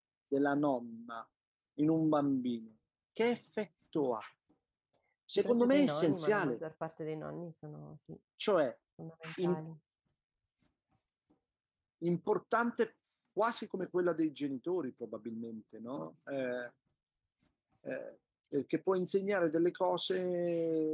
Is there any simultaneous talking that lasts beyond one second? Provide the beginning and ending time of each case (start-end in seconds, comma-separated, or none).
5.3-6.6